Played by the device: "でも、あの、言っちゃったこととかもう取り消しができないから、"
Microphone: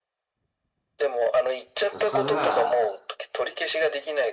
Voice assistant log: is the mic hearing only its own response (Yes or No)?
No